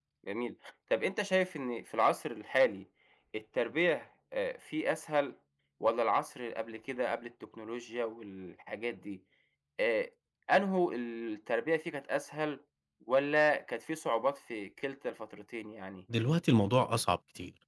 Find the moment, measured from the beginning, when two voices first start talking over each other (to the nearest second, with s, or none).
none